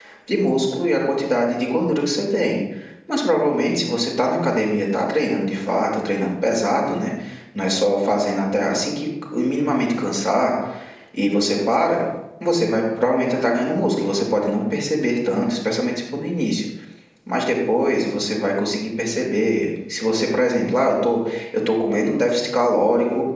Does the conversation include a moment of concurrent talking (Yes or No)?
No